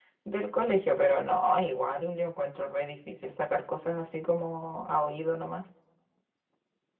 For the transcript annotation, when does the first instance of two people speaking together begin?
none

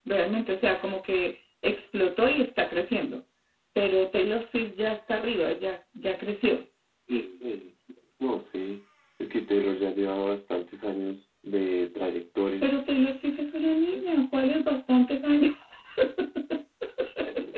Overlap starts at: none

